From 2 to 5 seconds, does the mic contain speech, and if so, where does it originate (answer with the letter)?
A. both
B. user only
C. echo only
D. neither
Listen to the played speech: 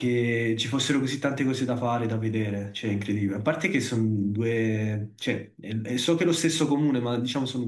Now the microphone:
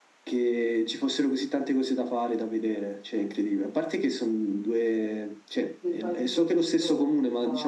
C